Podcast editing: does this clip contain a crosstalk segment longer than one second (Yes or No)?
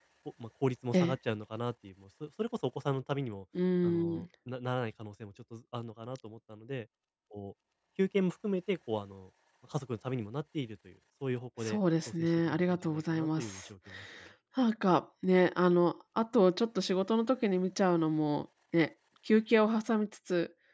Yes